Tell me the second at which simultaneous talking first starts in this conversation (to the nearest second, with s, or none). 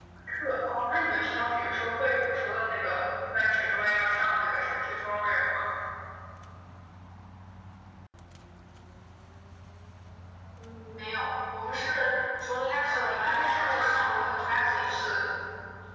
13 s